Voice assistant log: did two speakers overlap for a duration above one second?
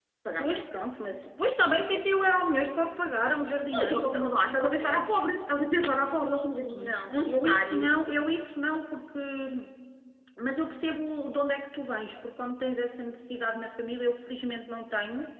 Yes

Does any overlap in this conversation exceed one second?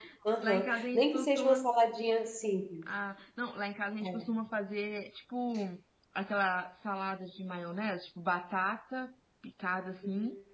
Yes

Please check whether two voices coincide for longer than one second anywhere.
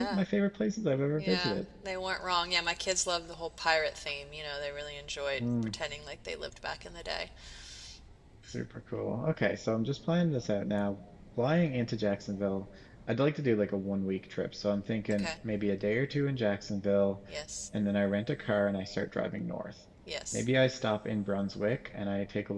No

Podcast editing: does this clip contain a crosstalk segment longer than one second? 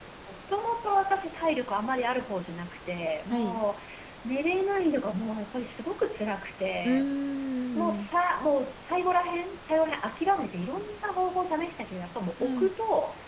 No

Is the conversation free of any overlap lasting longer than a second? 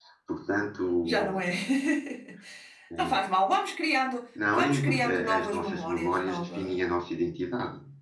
No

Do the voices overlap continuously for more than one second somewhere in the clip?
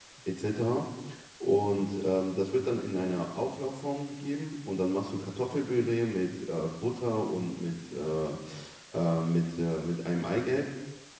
No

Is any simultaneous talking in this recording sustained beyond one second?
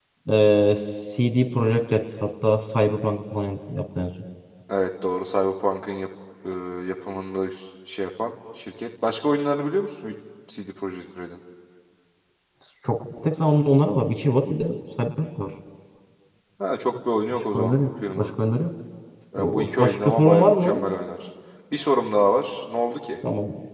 Yes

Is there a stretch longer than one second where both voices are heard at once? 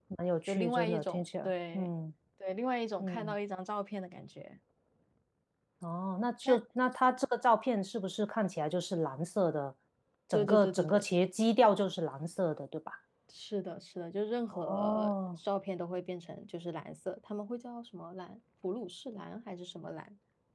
Yes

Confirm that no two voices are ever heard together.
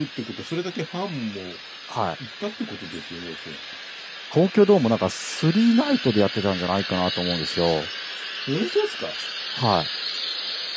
Yes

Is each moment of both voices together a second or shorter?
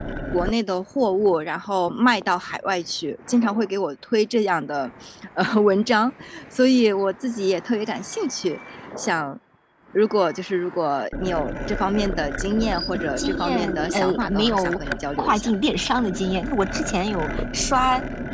No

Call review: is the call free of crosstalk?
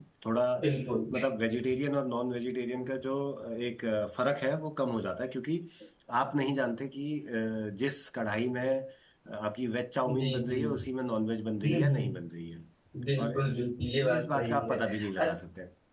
No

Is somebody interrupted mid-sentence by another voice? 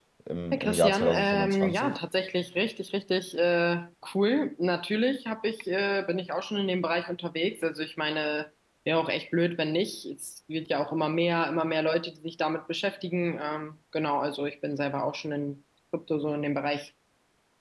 Yes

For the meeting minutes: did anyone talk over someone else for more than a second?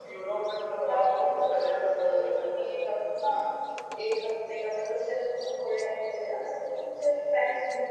Yes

